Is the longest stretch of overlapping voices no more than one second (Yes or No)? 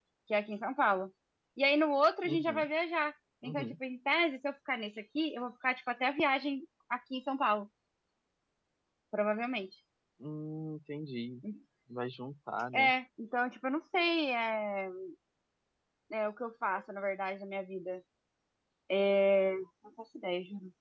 Yes